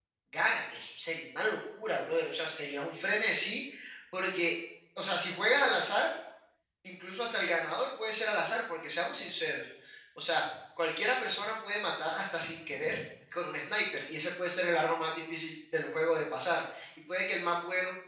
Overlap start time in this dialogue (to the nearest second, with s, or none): none